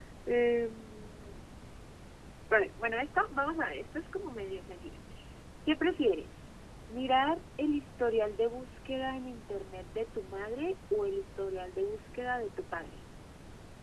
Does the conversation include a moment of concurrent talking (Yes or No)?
No